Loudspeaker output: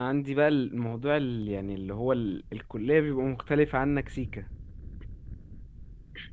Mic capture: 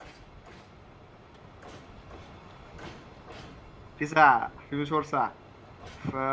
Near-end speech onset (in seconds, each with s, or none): 4.0 s